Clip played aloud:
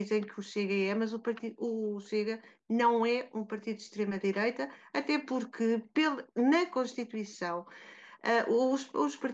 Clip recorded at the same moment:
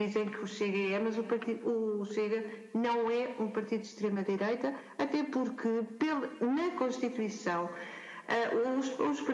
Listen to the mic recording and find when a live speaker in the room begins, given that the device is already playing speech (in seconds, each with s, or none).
none